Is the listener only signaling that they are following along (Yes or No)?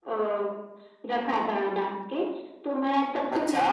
Yes